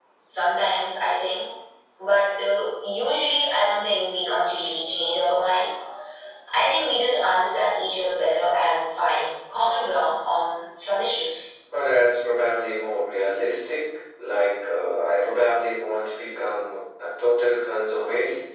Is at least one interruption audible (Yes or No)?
No